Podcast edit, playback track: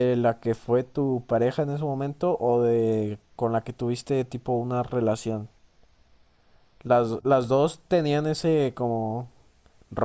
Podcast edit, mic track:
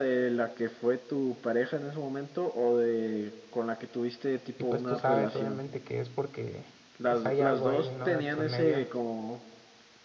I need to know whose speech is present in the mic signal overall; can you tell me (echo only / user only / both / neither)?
both